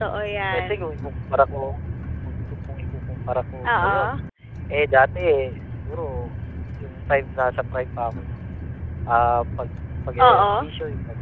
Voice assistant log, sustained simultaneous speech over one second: none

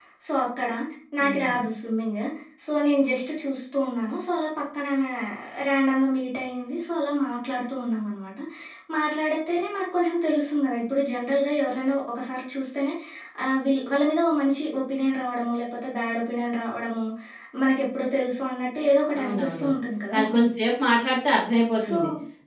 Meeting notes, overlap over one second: none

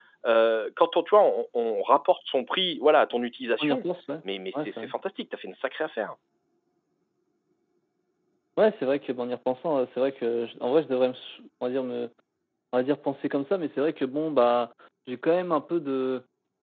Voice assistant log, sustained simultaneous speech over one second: none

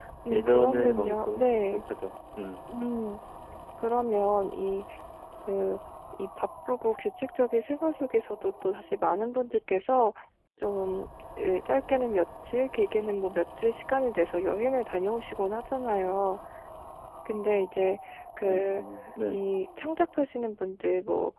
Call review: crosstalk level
present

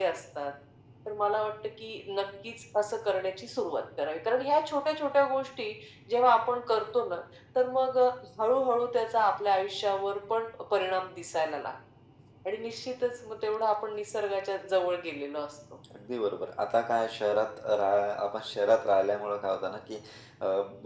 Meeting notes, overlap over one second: none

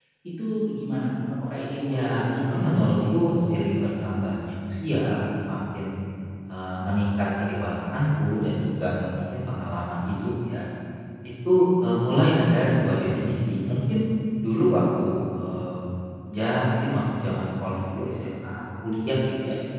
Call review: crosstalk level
present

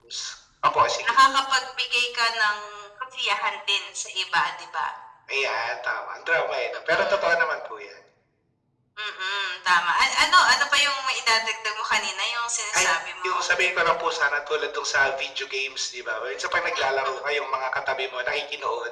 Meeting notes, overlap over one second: none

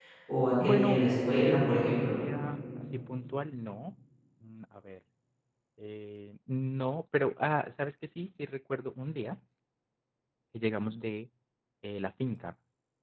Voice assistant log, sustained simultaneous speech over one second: present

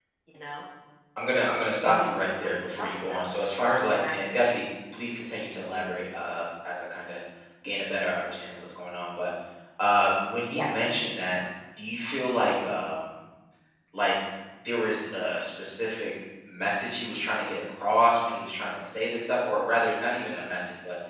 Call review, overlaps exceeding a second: present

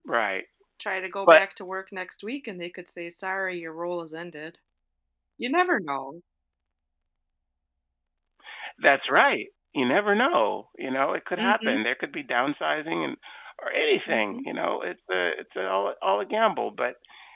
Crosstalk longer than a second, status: none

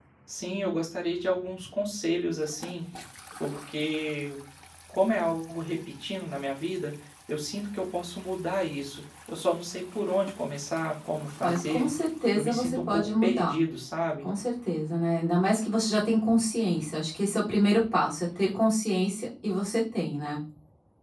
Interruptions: present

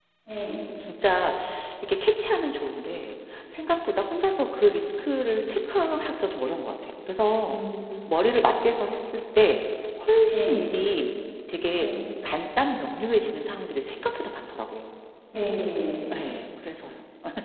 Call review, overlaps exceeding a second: none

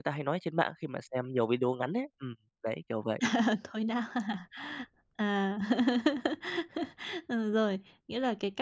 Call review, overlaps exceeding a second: none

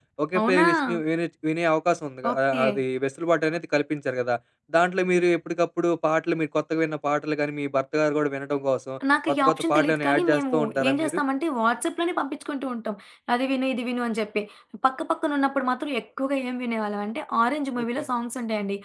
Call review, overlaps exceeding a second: present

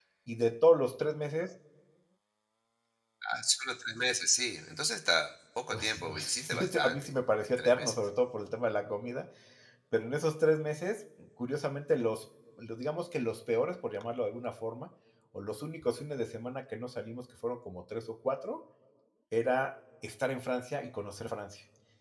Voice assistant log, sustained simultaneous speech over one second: present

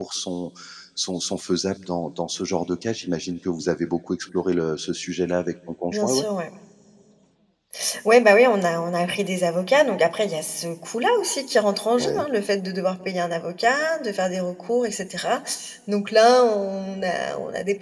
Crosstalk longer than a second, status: none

